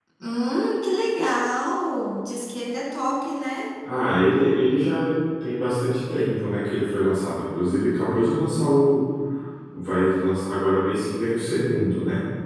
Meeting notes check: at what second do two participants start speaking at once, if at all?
none

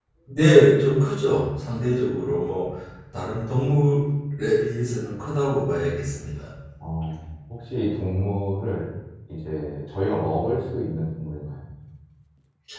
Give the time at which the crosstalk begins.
none

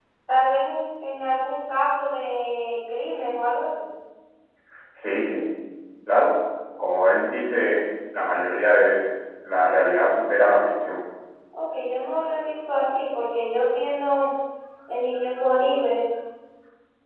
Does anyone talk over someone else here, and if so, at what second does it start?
none

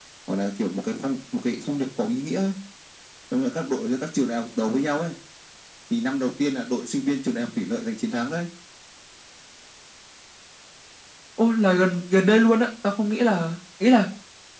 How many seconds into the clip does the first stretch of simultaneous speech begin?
none

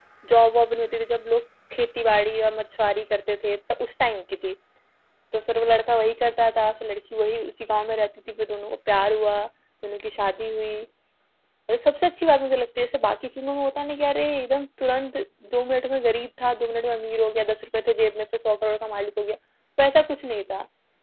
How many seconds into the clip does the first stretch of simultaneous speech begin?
none

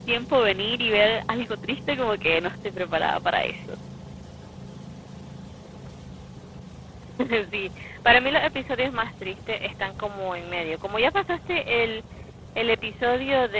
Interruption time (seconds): none

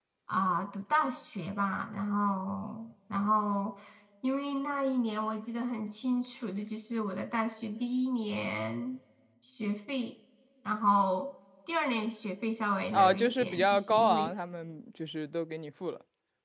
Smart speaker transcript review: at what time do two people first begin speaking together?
12.9 s

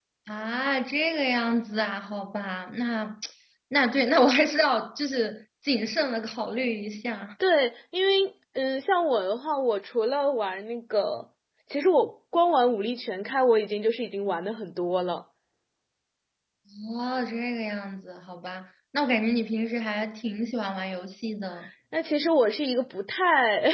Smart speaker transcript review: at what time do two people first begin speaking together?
none

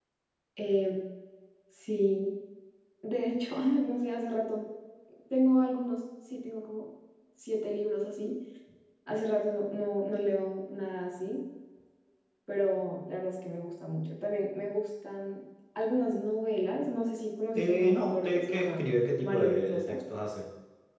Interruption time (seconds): 17.6 s

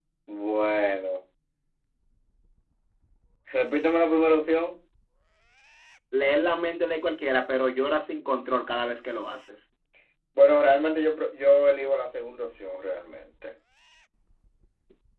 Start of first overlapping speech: none

